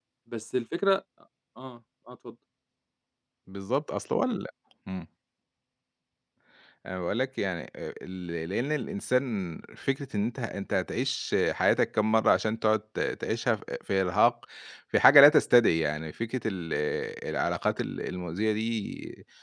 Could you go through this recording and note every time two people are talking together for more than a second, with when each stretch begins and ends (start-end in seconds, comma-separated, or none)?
none